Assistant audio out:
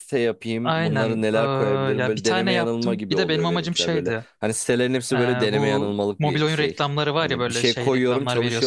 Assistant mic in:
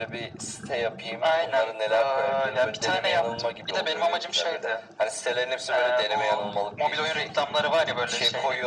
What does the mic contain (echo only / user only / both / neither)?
echo only